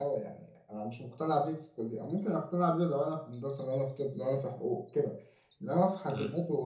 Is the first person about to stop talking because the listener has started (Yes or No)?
No